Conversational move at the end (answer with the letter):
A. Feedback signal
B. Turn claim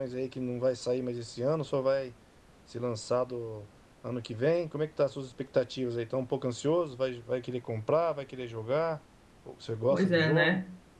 B